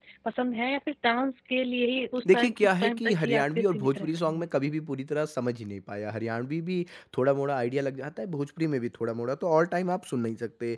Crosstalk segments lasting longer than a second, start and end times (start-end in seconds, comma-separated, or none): 2.3-4.5